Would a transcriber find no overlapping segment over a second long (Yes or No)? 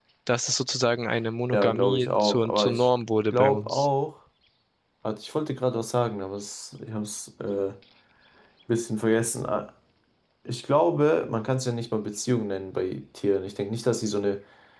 No